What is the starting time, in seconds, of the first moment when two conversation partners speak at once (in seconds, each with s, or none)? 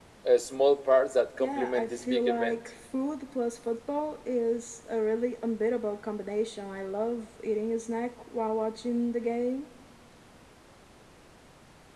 1.4 s